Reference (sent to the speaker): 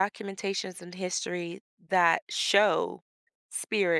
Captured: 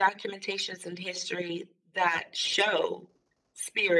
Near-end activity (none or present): none